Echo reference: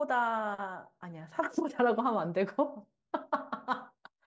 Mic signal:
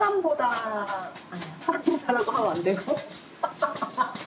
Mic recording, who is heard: echo only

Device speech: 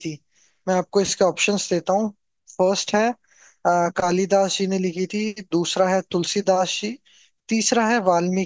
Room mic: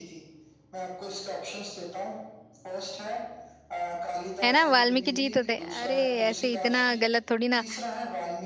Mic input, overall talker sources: both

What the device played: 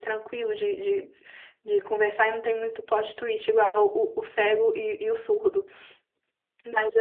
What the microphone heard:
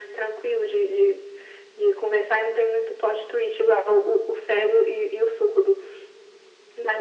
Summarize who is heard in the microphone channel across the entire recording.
echo only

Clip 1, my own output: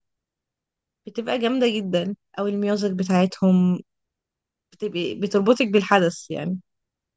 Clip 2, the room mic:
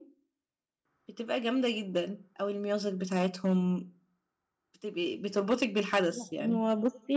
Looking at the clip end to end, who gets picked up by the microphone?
both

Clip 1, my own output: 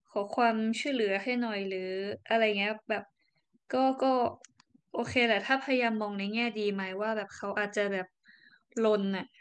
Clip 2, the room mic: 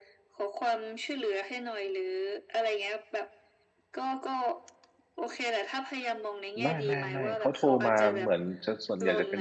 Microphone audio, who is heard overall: both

